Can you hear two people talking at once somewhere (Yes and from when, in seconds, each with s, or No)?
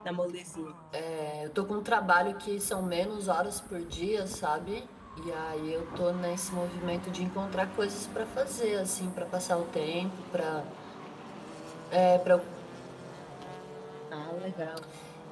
No